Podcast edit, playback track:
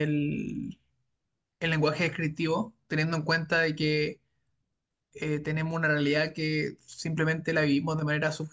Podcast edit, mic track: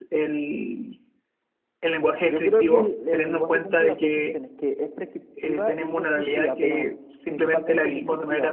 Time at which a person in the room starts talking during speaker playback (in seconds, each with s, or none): 2.2 s